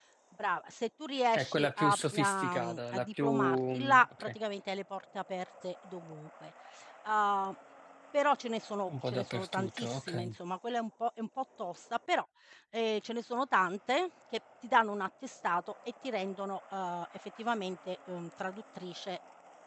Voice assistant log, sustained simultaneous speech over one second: present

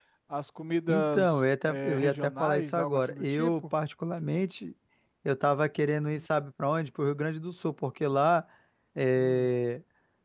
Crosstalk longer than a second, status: present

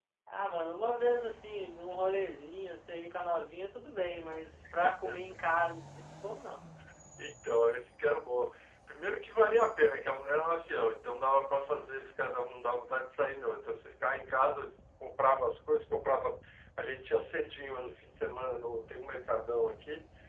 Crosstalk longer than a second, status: none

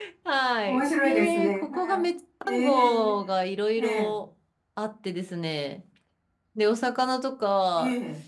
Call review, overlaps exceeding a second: present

